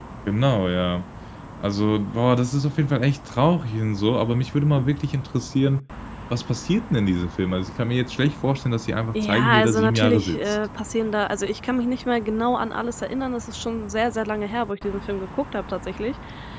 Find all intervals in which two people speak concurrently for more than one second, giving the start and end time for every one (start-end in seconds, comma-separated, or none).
9.1-10.6